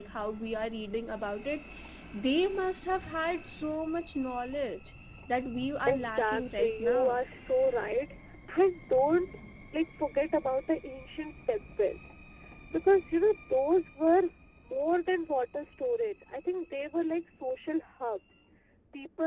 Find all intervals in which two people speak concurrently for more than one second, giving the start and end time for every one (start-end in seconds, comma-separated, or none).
5.9-7.2